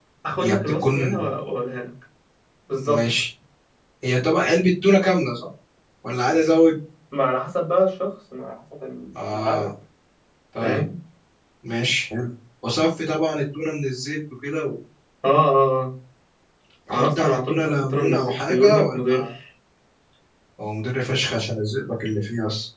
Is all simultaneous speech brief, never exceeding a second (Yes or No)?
No